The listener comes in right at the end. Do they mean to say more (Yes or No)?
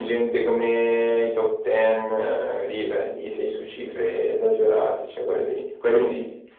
No